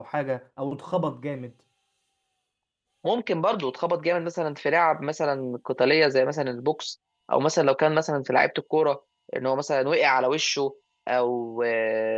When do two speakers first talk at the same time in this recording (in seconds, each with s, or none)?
none